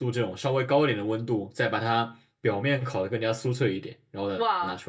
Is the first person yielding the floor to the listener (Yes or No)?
Yes